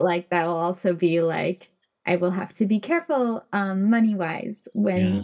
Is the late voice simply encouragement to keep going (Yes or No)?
Yes